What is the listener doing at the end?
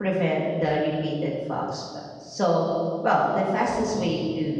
listening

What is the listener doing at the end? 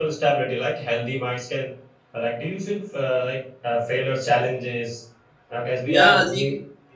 taking over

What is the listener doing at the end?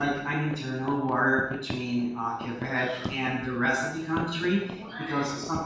listening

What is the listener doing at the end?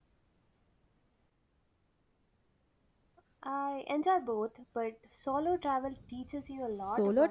taking over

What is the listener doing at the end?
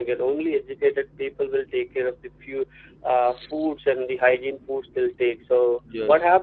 listening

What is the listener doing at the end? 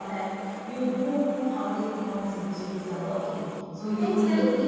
listening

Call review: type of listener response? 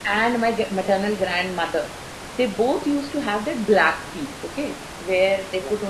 listening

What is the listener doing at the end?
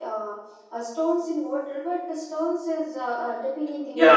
taking over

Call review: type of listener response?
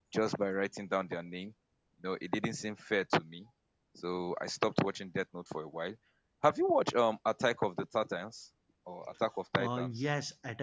taking over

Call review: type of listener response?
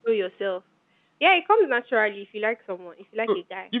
taking over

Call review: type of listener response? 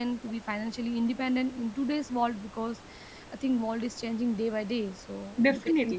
taking over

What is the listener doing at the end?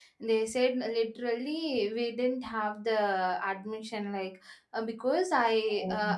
listening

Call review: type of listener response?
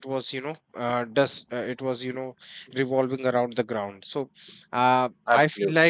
listening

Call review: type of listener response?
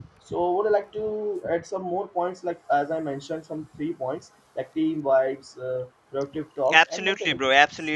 taking over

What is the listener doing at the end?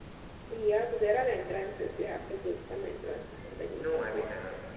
taking over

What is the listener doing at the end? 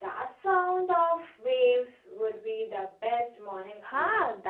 taking over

